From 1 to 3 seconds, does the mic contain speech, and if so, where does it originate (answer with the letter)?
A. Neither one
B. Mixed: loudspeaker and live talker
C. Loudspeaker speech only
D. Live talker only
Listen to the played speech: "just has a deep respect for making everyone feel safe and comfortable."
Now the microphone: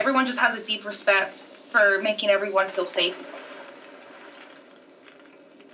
C